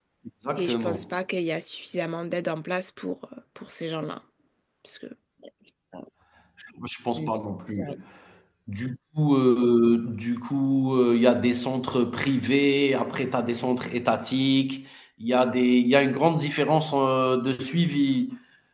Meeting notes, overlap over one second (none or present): none